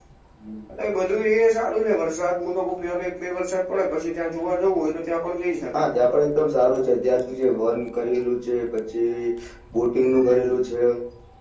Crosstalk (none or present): none